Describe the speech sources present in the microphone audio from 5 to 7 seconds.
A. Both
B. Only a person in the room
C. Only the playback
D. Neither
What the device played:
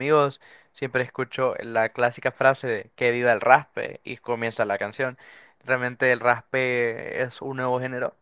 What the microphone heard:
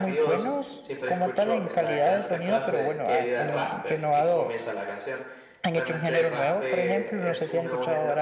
A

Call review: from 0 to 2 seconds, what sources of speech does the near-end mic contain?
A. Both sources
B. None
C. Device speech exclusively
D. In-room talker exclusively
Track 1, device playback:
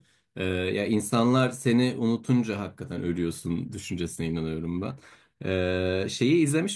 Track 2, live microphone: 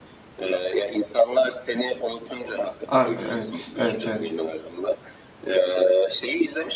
C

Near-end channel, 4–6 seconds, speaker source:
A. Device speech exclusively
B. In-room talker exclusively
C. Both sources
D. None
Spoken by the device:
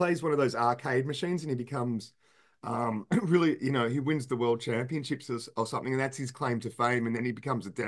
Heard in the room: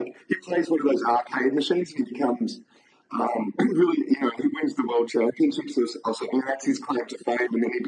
A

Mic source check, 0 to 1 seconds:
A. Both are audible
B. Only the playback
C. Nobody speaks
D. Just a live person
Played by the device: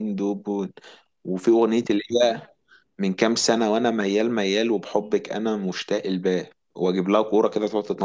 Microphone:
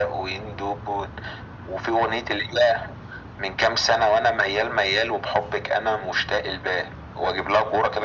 B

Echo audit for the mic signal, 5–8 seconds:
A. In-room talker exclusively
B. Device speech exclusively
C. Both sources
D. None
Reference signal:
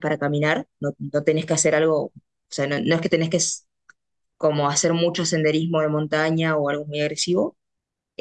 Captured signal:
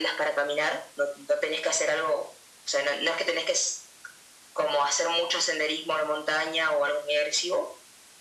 B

